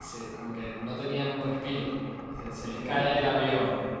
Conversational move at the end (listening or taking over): listening